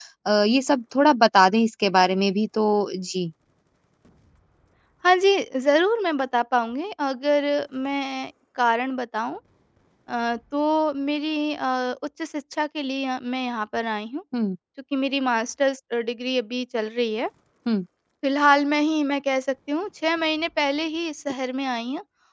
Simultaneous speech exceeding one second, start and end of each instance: none

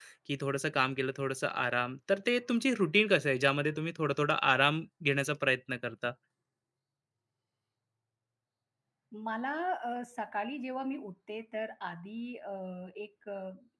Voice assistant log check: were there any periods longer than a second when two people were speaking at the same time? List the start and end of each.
none

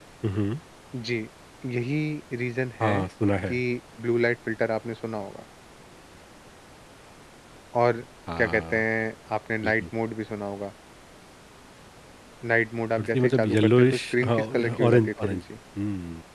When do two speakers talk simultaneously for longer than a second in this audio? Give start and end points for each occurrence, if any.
13.0-15.4

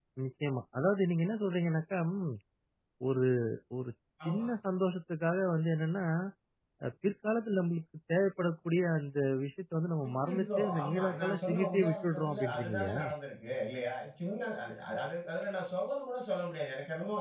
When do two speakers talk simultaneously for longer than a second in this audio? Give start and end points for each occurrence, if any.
10.0-13.0

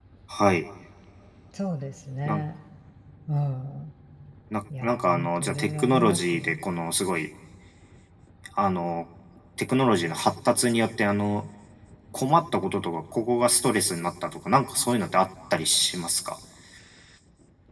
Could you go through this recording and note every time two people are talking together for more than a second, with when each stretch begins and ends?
4.8-6.6

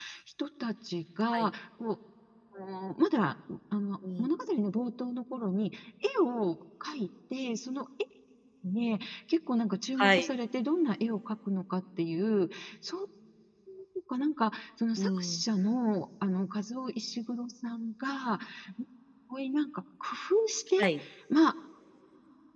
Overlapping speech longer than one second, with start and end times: none

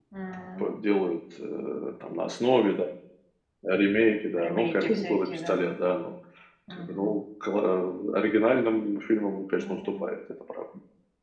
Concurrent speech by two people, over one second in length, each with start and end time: 4.4-5.7

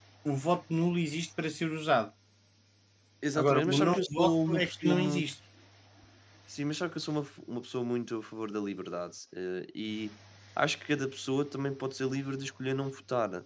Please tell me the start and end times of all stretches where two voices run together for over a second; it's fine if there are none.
3.4-5.3

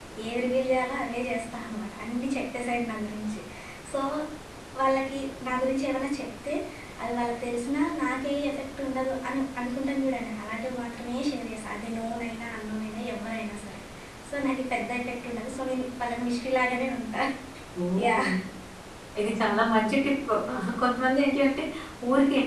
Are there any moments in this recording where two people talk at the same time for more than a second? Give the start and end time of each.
none

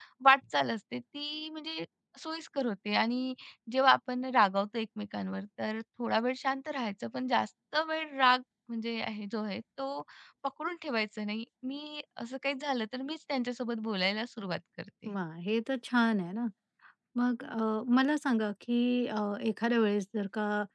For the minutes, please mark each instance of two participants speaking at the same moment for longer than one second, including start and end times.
none

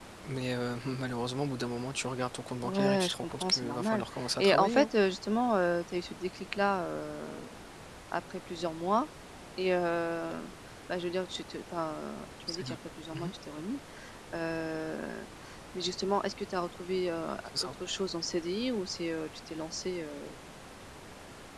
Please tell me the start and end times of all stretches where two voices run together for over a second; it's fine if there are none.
2.6-4.9

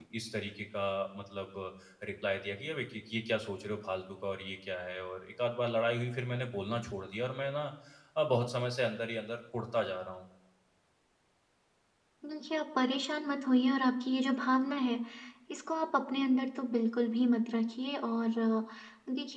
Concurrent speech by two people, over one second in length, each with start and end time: none

